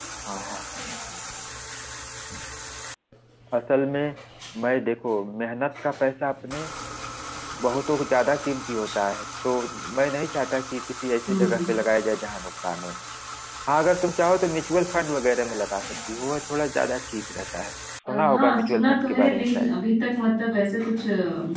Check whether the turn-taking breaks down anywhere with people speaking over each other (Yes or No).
Yes